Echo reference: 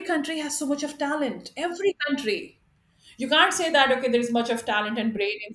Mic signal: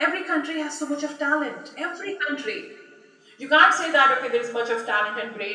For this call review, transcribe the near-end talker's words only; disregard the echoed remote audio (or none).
none